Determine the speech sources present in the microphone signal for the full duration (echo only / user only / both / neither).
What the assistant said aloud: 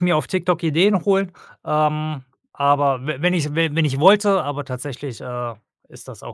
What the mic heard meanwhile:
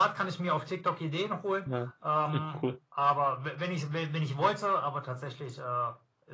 both